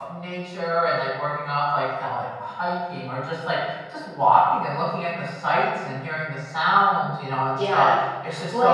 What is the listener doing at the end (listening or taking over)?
taking over